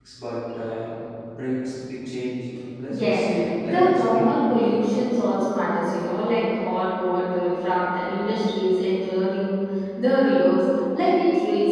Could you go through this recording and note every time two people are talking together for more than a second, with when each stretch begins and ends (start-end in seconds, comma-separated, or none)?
2.9-4.2